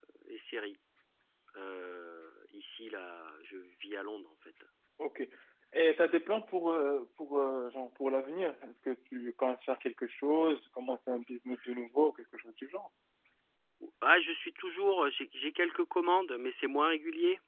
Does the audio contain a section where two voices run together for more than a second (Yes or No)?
No